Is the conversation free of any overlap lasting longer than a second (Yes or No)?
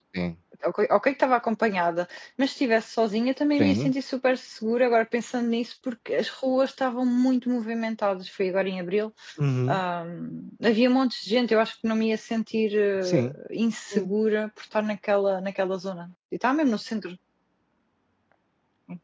Yes